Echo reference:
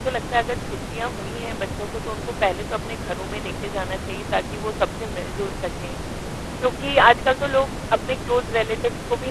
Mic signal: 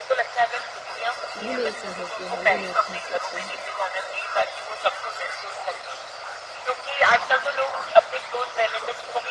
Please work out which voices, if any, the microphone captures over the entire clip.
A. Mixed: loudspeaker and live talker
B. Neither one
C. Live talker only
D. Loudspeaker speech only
A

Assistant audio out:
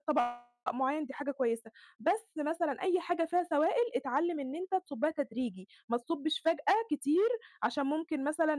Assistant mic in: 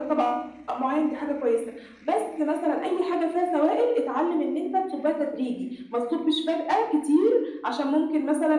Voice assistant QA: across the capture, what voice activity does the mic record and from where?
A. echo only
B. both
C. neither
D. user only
A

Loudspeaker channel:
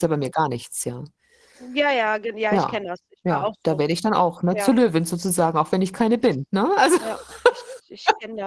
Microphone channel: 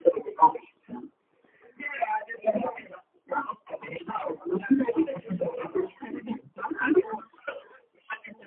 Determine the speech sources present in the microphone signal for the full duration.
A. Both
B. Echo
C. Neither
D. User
A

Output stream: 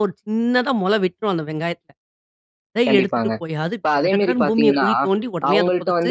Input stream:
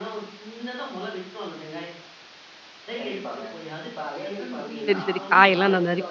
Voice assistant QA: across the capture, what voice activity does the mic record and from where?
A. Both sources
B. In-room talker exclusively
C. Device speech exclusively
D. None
A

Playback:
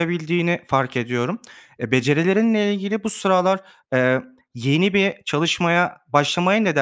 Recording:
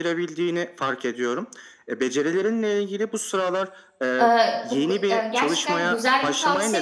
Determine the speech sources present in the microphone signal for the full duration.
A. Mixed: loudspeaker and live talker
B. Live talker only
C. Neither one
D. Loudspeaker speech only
A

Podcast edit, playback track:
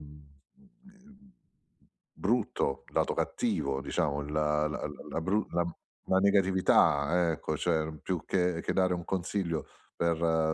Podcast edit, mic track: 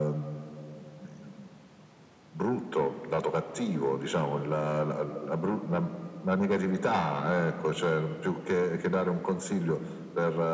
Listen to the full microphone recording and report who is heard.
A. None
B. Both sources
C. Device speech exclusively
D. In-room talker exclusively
C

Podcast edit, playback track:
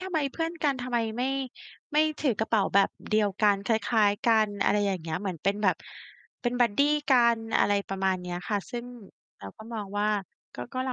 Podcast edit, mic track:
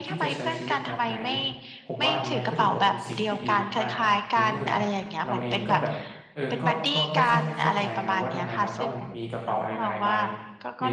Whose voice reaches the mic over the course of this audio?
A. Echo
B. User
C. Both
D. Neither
C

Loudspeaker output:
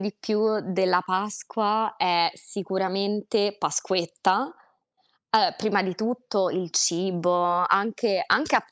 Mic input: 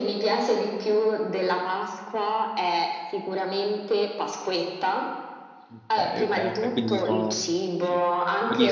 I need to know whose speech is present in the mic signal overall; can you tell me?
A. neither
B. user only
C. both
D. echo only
C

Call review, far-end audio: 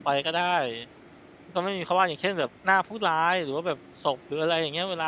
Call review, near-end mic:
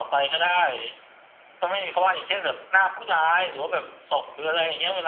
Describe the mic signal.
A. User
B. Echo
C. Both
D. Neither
B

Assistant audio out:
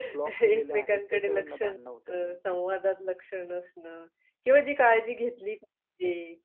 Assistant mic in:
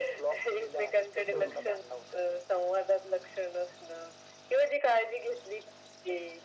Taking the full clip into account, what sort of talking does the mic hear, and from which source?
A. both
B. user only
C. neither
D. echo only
A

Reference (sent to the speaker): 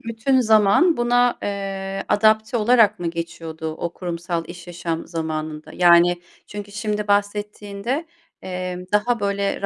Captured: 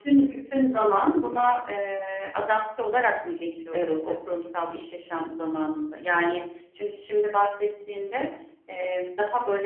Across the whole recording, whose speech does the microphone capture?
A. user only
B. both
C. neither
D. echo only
B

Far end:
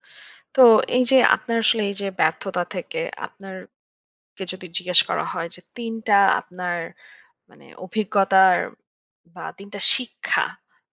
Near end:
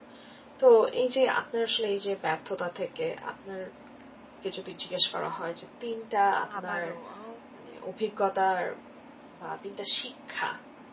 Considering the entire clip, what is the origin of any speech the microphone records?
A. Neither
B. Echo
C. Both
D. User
C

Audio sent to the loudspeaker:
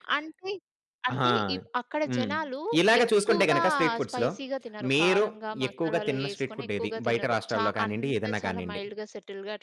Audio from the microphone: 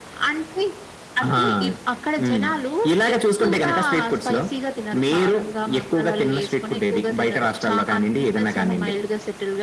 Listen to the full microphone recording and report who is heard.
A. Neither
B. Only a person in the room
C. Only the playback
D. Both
C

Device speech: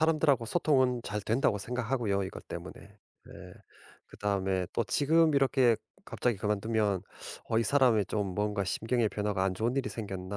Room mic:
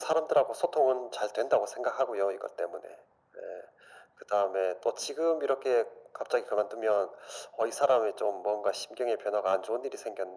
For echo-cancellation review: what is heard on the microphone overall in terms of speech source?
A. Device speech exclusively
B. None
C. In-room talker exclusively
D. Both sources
A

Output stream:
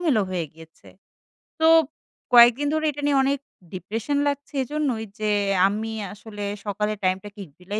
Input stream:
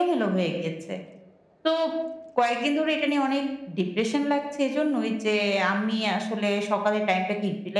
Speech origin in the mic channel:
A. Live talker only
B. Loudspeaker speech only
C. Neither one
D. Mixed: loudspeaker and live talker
B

